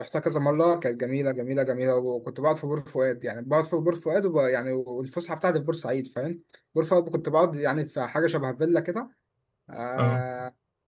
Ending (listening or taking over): listening